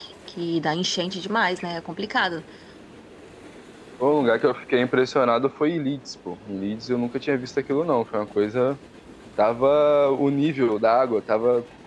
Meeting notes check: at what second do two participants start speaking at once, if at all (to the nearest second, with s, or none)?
none